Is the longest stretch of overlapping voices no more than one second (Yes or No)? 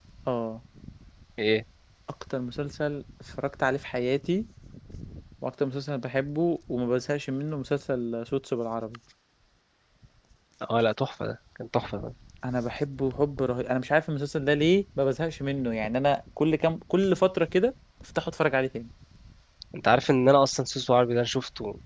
Yes